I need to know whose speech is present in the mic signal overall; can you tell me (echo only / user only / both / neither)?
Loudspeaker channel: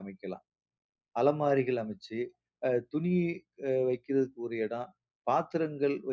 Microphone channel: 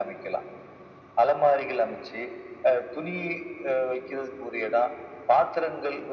echo only